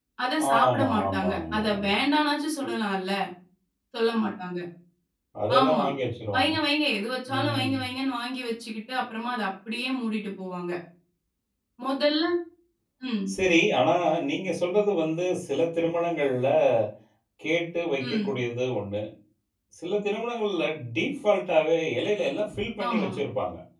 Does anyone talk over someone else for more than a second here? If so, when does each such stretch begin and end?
0.5-1.9

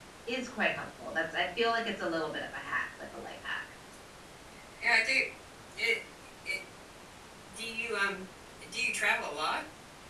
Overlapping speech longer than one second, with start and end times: none

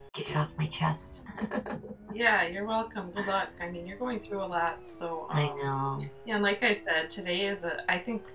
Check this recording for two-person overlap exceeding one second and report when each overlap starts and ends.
none

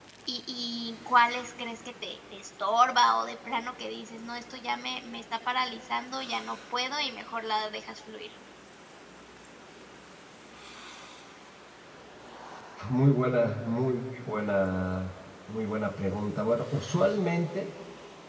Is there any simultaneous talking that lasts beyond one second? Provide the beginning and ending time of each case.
none

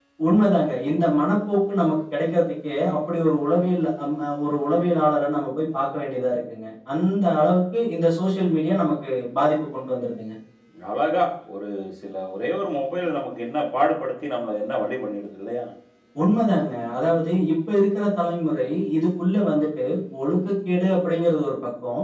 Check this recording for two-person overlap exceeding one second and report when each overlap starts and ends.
none

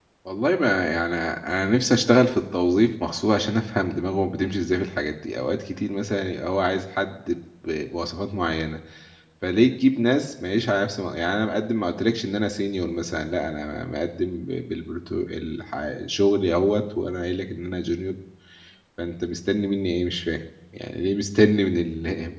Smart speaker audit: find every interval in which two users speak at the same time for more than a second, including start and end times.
none

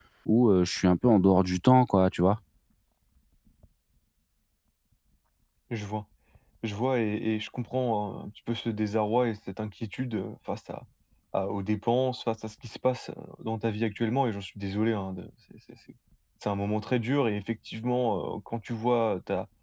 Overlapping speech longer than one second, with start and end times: none

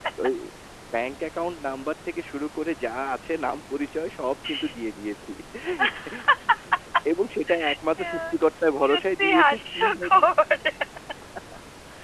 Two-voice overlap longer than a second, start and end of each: 8.9-10.2

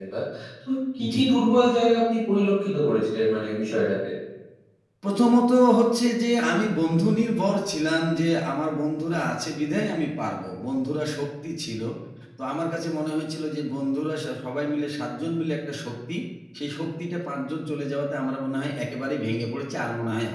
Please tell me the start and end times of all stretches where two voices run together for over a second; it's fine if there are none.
none

